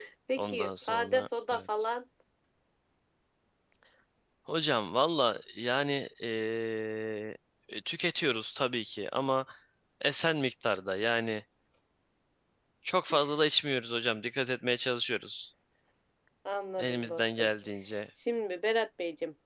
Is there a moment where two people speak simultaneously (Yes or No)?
Yes